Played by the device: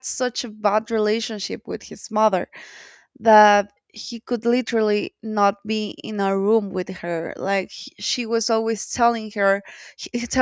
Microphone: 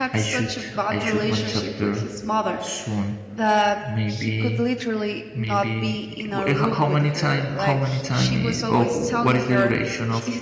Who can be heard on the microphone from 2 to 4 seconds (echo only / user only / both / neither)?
both